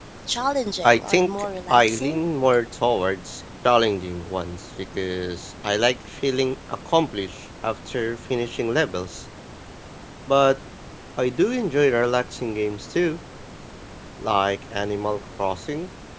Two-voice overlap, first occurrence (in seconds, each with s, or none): 0.8 s